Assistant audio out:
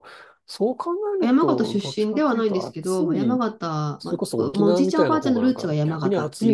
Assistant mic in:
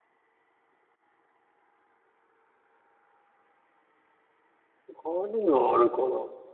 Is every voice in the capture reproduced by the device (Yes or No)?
No